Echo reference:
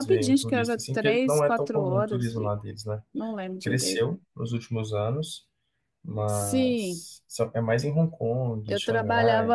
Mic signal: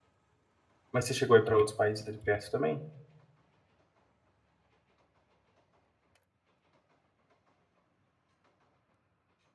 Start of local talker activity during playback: 0.9 s

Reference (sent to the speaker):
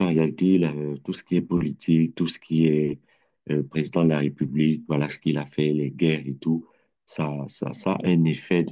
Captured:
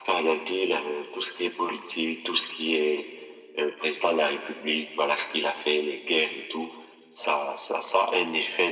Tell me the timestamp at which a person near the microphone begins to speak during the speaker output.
none

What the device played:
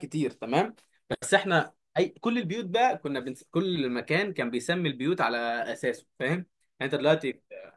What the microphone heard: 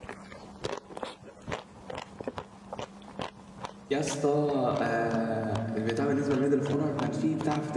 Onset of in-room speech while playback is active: 3.9 s

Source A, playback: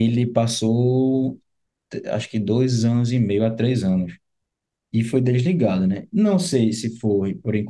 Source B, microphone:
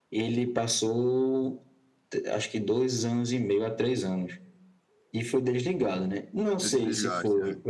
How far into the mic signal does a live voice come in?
6.6 s

